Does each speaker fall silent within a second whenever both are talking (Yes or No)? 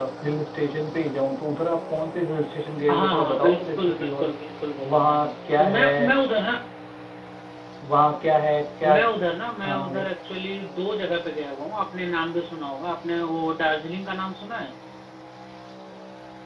No